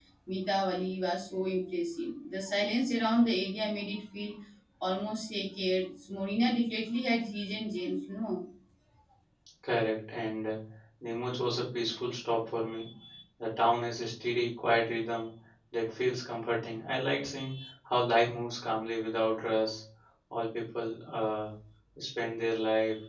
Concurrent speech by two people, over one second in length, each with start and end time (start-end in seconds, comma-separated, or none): none